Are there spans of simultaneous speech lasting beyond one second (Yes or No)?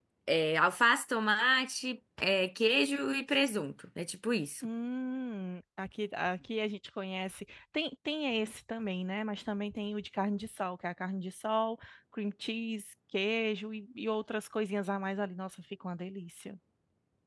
No